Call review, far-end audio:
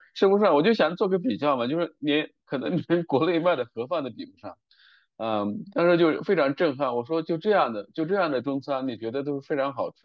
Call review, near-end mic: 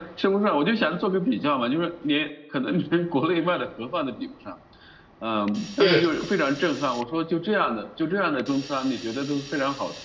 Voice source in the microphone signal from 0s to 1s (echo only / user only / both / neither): echo only